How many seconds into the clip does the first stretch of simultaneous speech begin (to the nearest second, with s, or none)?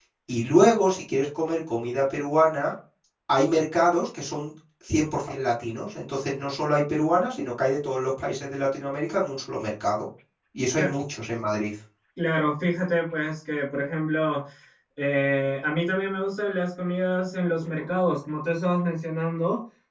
none